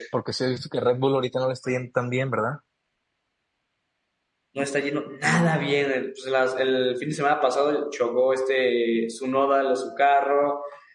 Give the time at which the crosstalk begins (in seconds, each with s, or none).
none